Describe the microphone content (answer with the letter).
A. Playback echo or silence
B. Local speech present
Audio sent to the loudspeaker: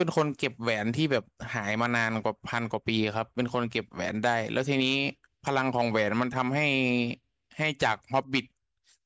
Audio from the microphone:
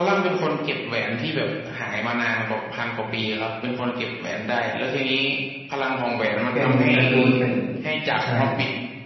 B